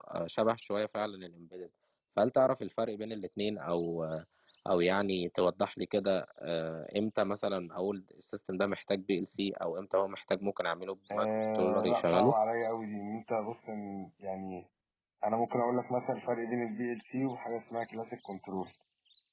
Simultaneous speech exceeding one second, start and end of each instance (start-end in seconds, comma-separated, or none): 11.1-12.3